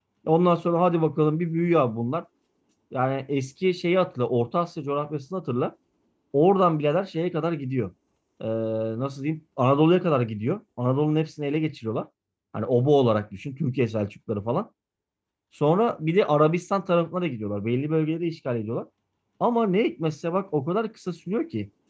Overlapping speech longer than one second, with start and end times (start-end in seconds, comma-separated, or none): none